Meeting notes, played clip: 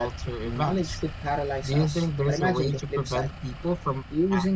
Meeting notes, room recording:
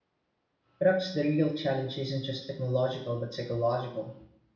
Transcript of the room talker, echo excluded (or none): Perhaps the real challenge isn't just technological but psychological.